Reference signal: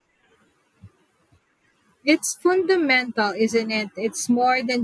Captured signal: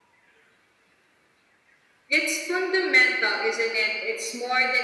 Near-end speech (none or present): none